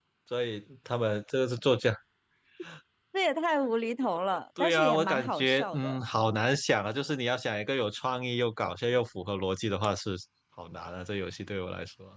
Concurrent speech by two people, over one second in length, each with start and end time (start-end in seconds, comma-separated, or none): 4.6-6.0